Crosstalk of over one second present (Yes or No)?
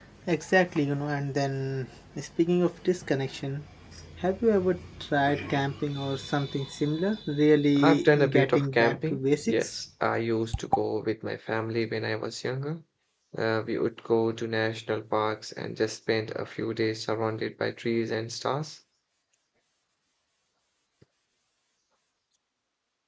Yes